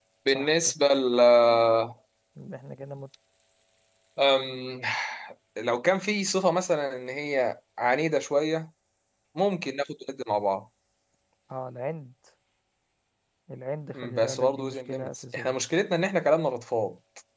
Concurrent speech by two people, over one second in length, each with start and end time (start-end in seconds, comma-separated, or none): 13.9-15.6